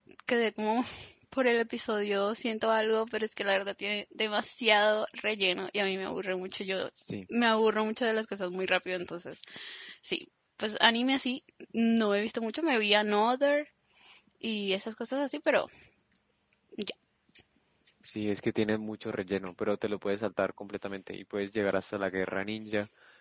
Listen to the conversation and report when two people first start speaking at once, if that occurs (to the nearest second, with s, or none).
none